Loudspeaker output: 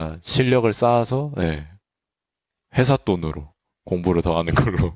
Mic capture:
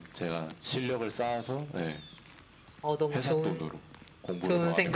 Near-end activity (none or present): present